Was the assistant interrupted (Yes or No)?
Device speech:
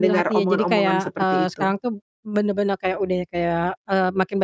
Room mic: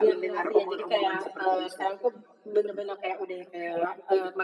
No